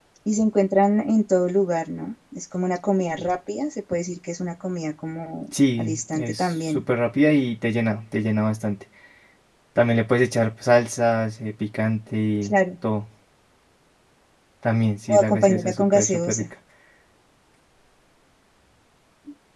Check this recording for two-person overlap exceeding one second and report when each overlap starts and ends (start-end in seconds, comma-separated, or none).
5.5-6.8, 15.1-16.4